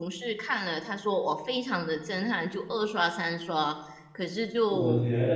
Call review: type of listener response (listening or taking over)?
taking over